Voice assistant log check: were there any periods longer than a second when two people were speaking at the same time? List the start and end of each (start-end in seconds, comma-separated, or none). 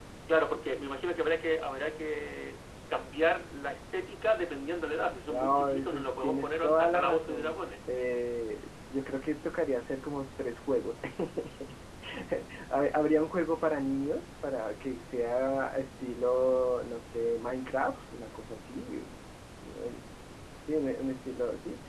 5.3-7.6